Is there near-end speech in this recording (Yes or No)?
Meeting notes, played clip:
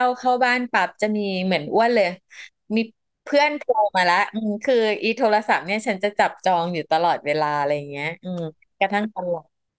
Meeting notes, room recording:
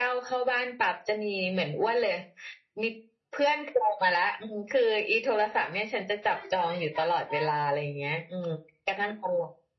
Yes